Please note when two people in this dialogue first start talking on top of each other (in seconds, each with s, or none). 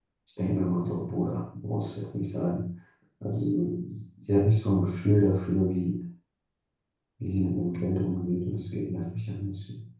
none